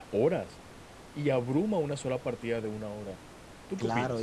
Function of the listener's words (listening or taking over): taking over